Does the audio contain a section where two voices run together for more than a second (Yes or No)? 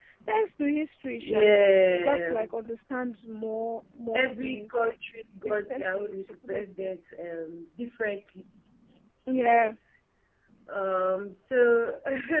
Yes